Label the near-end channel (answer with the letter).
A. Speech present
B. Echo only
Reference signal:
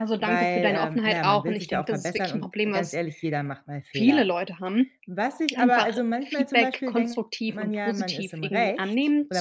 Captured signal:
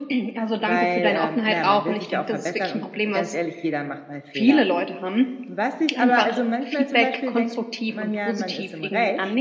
B